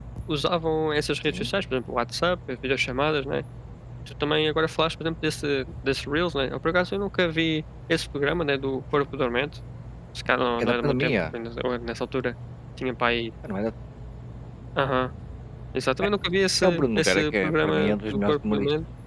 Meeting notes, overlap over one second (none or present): present